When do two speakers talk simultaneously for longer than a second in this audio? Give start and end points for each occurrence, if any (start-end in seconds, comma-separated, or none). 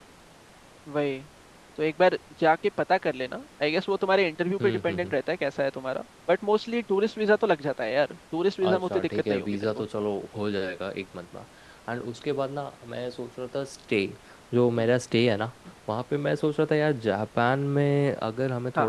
8.6-9.8